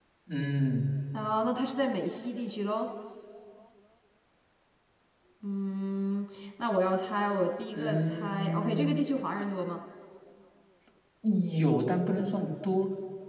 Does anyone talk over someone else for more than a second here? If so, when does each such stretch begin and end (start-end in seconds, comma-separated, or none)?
7.7-9.0